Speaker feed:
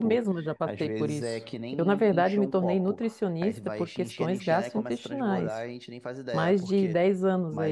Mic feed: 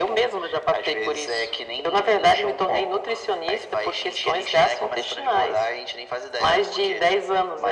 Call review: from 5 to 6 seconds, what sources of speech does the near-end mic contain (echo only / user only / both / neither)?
echo only